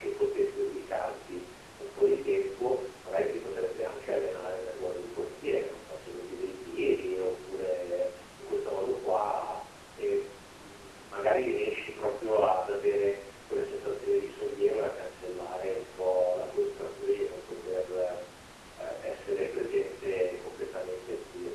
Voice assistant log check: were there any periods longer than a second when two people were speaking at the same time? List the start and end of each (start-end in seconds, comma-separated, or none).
none